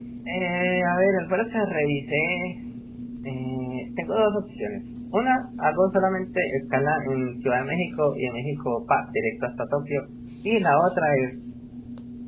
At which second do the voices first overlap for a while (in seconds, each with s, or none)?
none